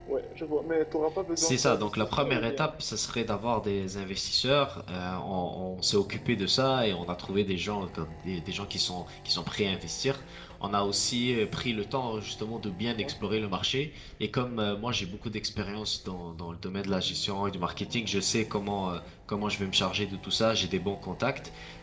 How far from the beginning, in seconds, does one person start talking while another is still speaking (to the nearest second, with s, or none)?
1 s